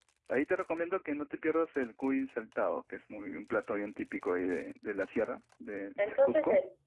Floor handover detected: Yes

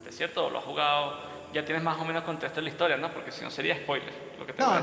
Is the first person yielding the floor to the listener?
Yes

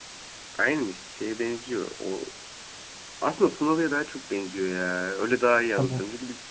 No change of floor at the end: Yes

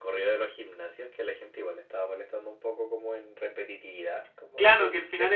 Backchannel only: No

